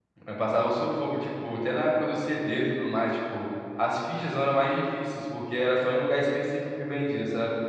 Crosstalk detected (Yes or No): No